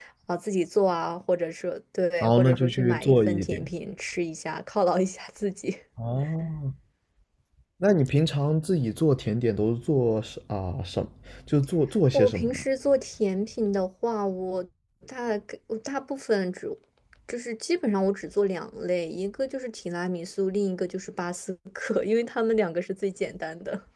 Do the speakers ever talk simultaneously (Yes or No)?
Yes